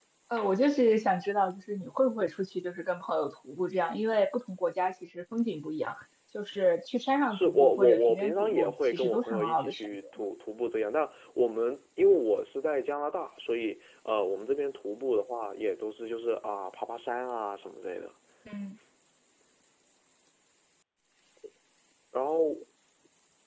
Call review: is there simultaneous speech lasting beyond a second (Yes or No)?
Yes